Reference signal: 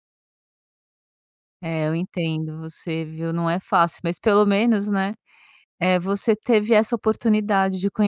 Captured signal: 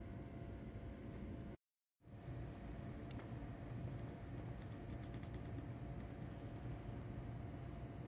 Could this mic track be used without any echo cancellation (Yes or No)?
Yes